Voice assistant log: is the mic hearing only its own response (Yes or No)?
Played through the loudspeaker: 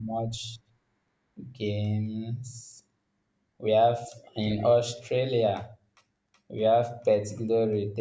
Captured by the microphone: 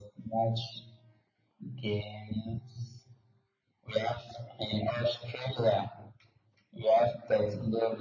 Yes